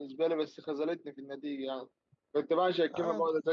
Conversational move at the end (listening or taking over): listening